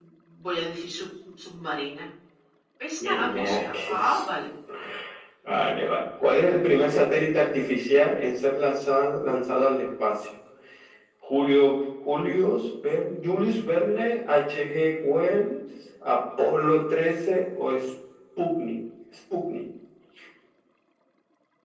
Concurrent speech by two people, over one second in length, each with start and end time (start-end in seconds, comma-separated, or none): 3.0-4.3